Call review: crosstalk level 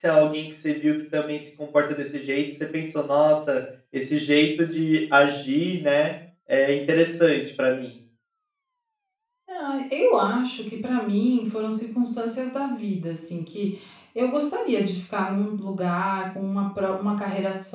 none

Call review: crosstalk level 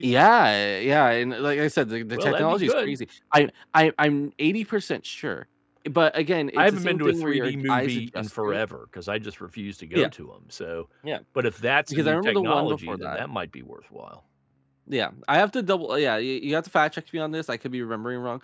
present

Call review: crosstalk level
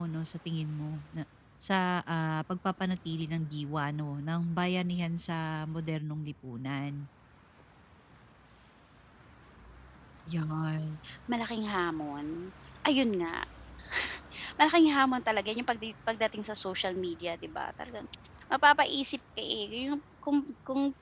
none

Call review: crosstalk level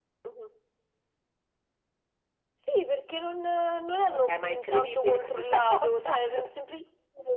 present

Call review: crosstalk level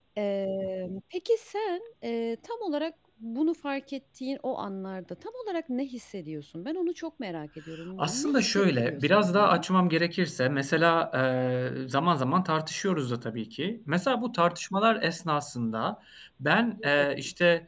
present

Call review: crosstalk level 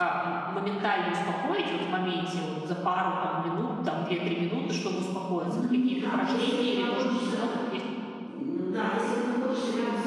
present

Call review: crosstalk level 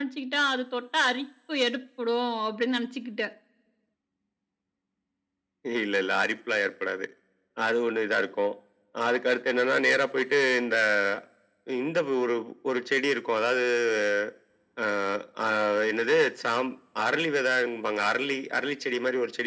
none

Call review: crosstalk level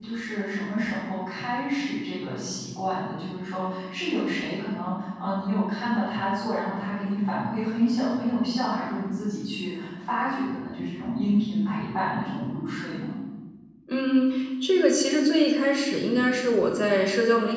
none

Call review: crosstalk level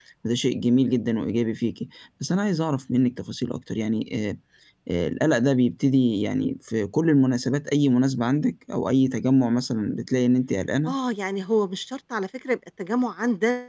none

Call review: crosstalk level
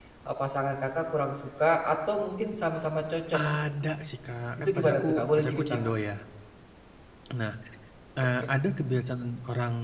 present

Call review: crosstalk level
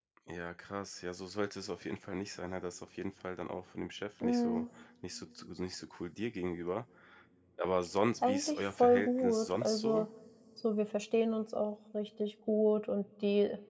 present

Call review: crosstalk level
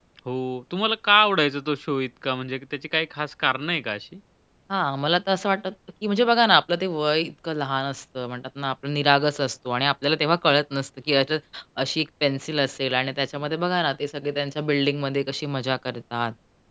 none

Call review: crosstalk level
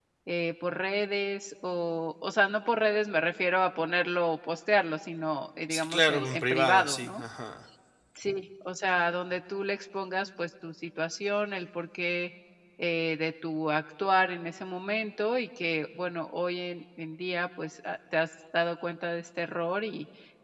present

